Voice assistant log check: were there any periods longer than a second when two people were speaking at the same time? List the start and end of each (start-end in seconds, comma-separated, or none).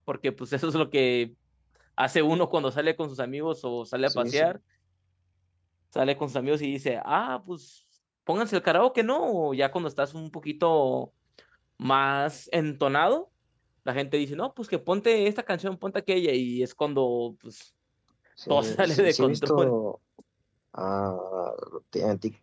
18.5-19.7